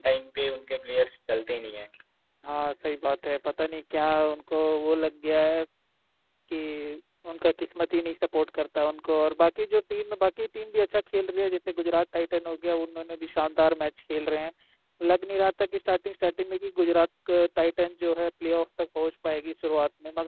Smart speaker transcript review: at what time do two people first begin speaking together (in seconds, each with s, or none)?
none